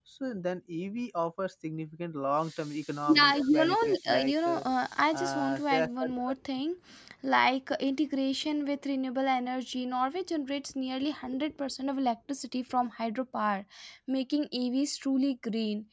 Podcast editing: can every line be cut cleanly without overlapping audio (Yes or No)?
No